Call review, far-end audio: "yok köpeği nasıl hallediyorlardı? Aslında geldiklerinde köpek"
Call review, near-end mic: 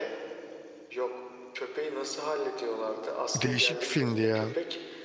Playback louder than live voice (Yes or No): No